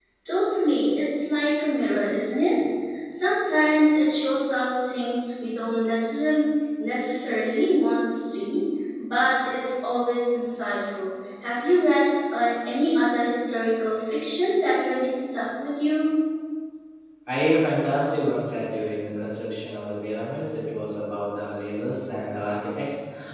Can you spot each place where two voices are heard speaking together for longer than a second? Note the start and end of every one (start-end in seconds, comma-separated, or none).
none